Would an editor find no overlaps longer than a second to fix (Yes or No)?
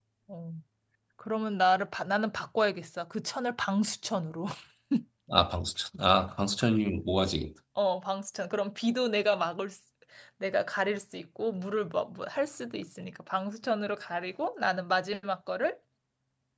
Yes